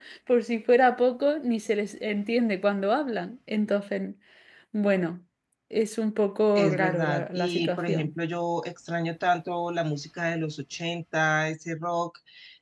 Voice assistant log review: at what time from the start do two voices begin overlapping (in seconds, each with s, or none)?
6.6 s